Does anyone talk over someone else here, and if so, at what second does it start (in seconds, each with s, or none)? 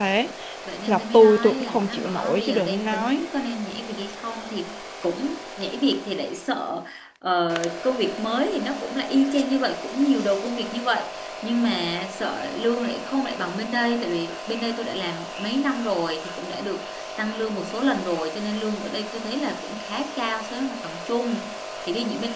0.9 s